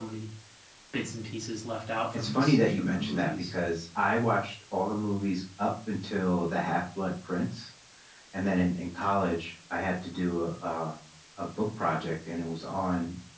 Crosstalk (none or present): present